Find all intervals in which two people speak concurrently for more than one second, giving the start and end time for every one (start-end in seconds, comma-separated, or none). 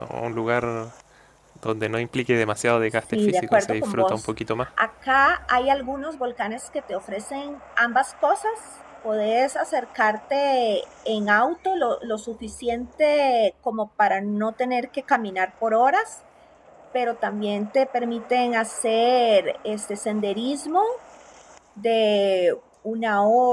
3.1-4.3